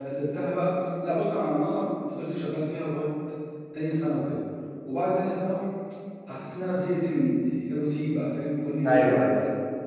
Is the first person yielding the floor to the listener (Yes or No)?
No